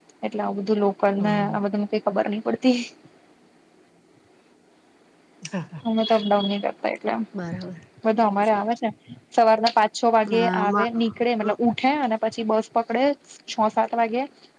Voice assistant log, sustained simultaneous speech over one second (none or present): present